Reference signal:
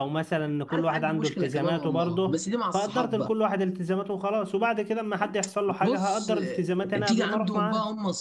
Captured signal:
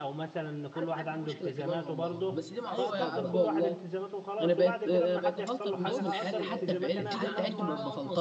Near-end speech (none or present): present